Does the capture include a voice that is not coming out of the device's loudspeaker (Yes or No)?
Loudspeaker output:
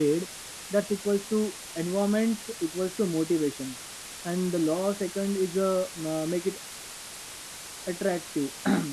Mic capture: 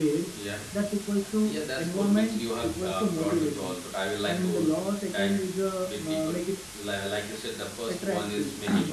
Yes